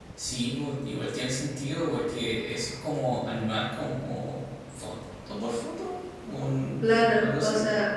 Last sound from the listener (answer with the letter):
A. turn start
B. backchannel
A